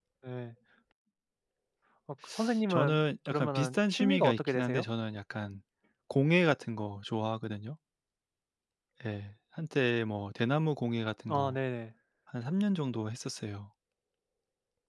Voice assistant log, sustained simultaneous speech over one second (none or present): present